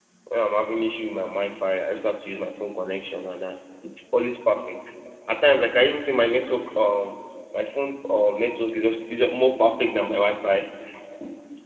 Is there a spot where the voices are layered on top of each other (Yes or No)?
No